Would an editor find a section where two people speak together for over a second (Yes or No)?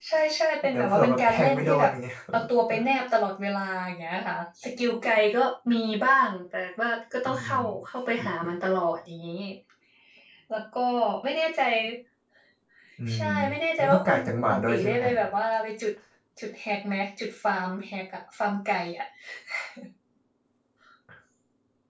Yes